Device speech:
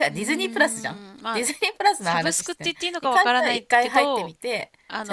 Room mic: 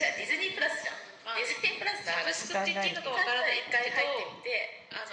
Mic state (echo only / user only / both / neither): both